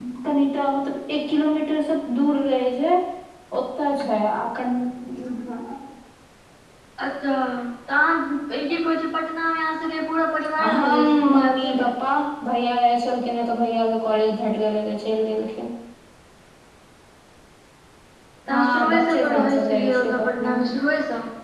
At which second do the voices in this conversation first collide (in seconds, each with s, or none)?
10.6 s